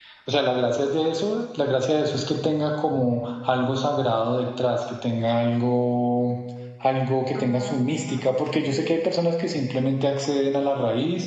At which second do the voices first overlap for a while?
7.4 s

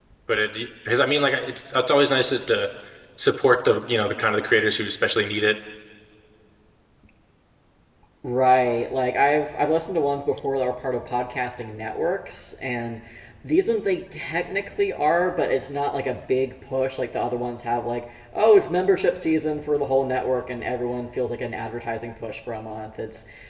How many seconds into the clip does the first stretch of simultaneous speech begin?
none

